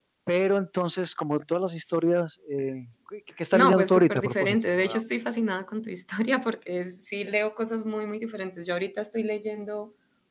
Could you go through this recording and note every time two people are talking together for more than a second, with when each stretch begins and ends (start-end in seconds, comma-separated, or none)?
3.5-5.0